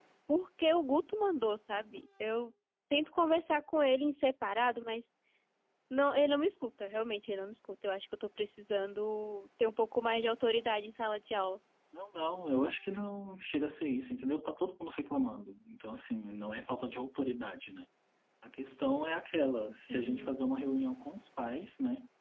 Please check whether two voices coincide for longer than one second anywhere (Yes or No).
No